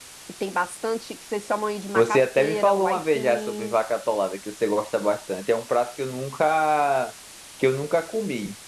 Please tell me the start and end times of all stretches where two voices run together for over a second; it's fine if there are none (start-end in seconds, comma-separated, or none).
1.9-3.8